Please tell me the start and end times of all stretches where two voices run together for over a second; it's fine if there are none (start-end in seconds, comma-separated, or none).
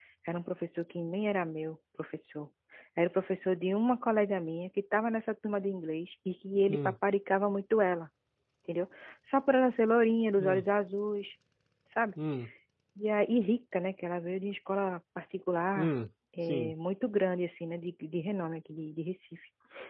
none